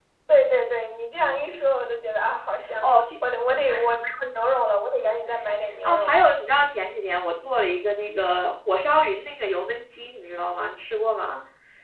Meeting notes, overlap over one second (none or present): none